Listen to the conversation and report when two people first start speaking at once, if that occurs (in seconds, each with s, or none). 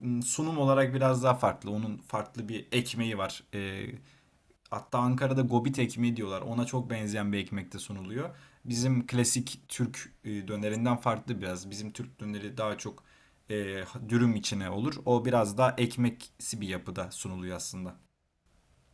none